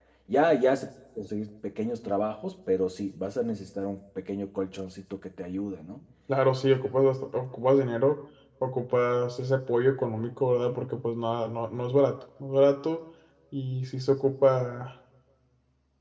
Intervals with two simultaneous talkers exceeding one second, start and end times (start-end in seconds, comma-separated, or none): none